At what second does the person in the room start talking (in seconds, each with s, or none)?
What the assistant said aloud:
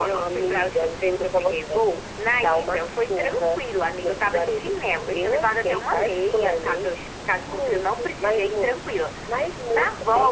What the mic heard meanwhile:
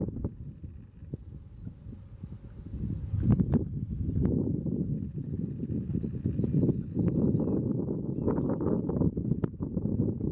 none